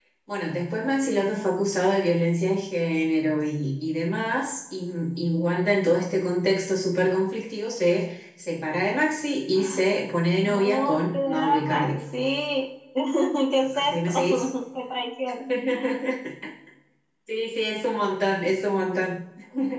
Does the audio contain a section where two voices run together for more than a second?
Yes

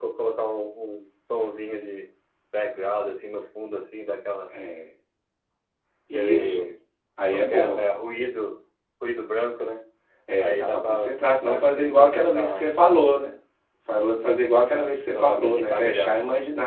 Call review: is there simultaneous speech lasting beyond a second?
Yes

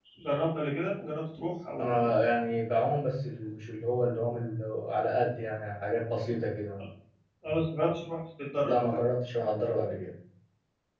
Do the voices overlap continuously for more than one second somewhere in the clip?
No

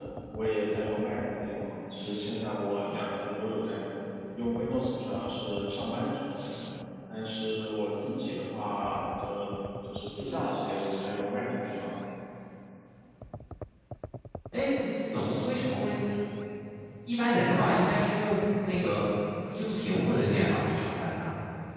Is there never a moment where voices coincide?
Yes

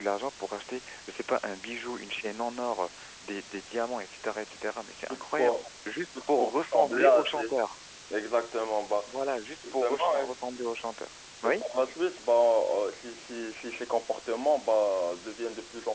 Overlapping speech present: Yes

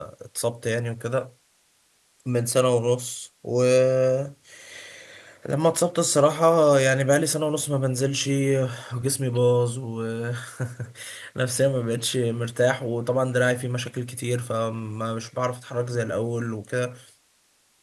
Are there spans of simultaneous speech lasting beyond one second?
No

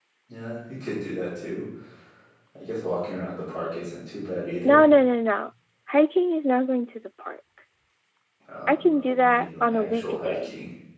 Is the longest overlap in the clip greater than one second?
Yes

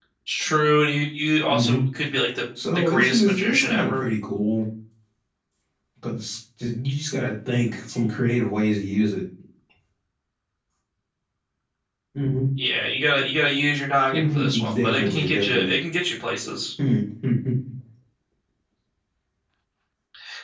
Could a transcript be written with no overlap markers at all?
No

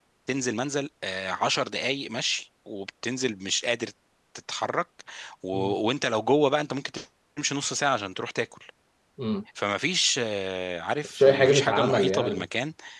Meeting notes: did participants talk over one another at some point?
Yes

